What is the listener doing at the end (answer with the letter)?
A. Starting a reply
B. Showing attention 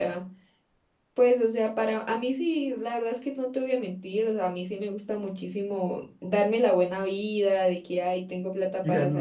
B